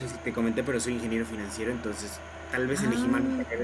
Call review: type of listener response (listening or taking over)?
listening